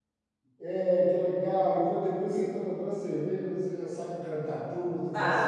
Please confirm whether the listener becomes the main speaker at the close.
Yes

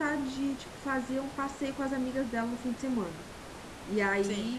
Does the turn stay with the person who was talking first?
Yes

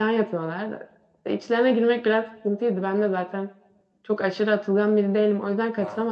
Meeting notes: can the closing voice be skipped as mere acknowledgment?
Yes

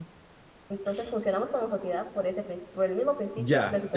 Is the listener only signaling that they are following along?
No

